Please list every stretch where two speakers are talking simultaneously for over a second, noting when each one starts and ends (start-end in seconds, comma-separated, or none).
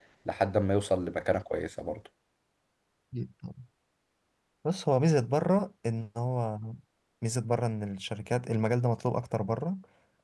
none